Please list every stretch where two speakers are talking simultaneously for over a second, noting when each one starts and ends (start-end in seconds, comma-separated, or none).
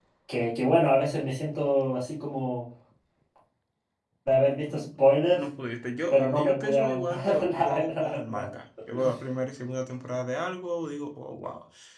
6.1-8.4